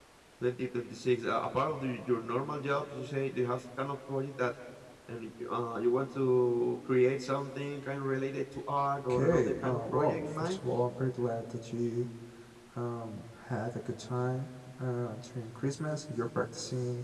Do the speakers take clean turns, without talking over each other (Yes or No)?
No